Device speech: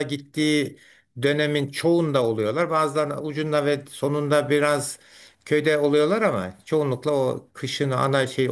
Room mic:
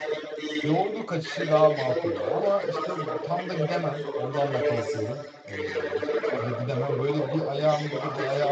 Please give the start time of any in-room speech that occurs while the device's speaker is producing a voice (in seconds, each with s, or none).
0.6 s